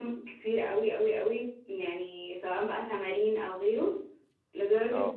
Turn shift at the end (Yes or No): No